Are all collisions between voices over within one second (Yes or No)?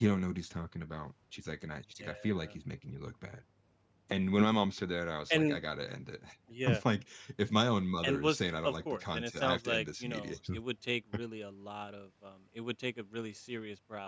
No